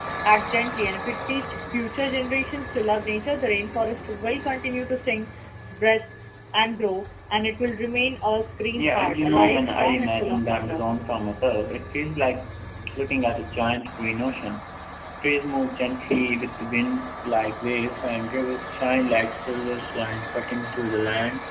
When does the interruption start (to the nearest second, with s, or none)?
9 s